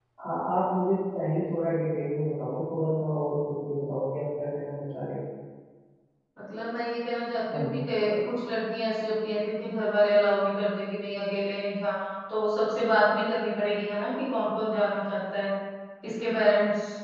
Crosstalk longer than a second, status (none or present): none